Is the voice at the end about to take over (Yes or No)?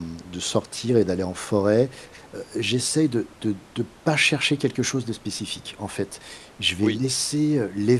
No